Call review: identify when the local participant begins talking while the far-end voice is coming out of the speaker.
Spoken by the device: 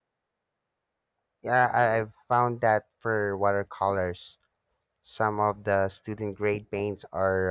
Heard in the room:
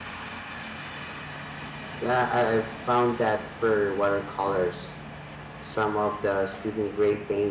none

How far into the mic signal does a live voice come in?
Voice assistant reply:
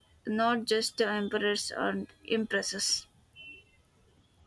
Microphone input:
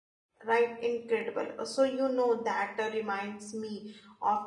0 s

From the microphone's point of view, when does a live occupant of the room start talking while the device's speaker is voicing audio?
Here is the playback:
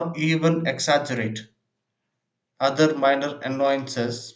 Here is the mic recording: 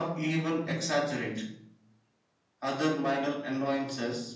none

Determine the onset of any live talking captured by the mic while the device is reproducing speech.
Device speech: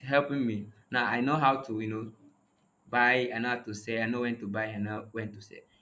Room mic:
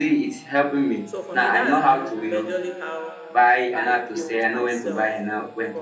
1 s

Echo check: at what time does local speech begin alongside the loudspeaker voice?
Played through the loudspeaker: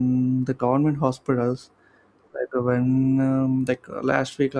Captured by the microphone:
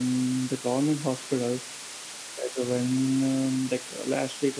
none

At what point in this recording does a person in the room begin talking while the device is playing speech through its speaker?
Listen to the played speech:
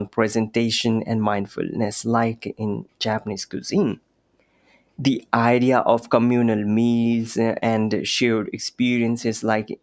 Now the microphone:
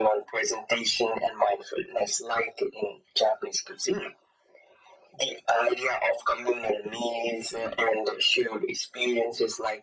none

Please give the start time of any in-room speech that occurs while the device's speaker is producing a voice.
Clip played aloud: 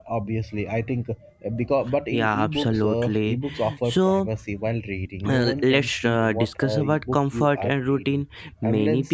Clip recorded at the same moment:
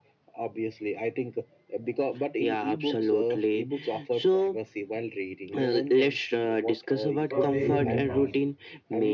7 s

